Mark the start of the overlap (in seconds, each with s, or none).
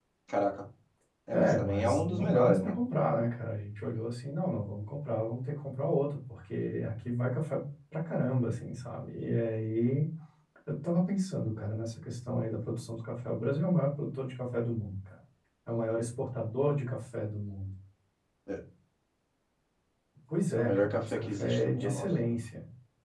1.3 s